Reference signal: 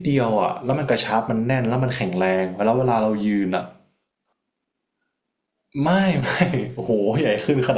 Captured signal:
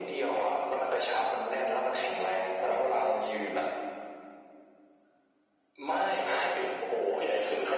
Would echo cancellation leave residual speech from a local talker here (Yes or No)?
No